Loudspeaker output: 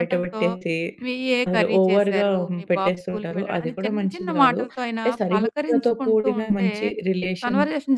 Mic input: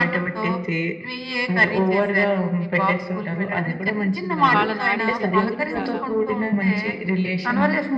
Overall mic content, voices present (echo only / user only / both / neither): both